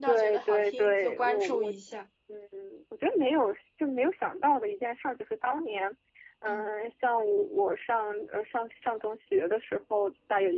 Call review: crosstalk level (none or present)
present